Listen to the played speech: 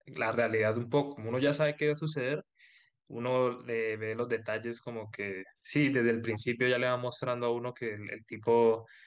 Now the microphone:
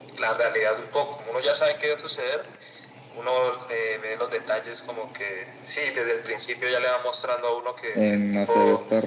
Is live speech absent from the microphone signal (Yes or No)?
No